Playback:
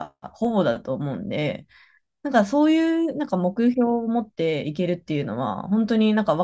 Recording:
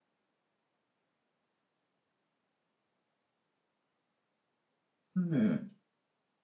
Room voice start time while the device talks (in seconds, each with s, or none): 5.2 s